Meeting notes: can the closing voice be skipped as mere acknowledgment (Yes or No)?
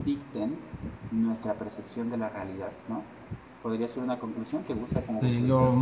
No